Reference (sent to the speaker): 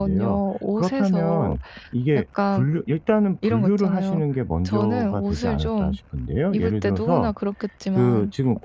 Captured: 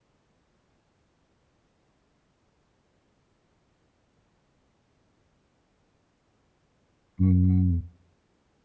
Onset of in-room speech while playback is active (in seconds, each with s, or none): 7.2 s